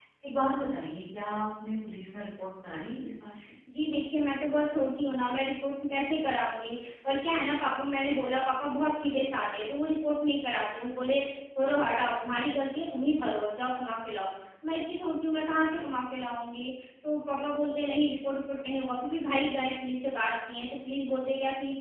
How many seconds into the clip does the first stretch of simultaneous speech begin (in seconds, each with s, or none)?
none